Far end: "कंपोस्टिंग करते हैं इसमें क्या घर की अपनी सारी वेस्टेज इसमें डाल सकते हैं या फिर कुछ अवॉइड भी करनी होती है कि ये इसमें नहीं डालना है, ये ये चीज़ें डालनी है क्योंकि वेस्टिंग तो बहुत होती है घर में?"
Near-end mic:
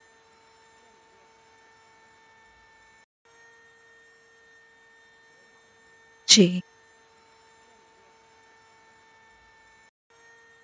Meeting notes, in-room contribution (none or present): present